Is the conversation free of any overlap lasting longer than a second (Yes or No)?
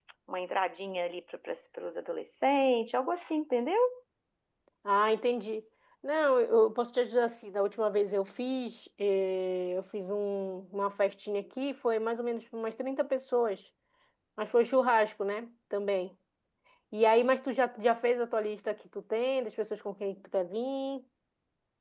Yes